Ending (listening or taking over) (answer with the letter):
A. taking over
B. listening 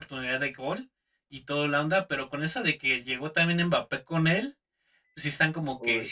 B